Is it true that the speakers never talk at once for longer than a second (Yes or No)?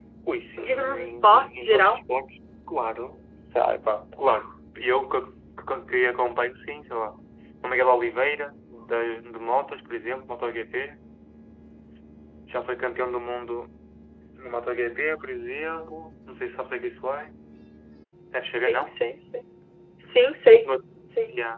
No